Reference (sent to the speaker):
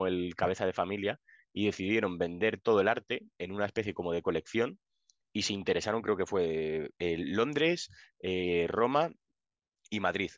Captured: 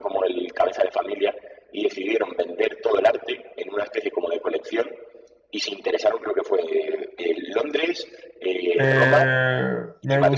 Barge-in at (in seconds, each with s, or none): 8.8 s